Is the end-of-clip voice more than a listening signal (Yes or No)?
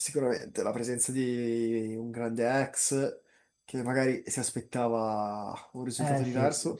Yes